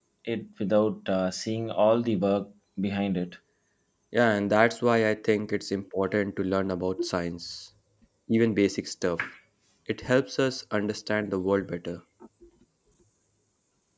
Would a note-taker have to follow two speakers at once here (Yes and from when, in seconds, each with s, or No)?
No